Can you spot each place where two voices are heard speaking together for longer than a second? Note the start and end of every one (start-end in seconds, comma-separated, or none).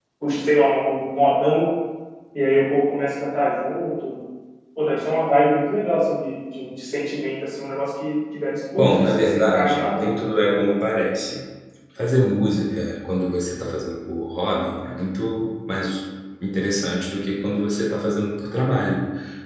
8.8-10.2